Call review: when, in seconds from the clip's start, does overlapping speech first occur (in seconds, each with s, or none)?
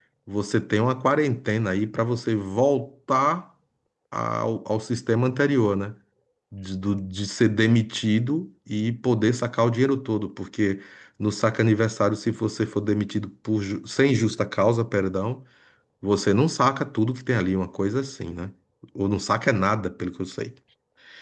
none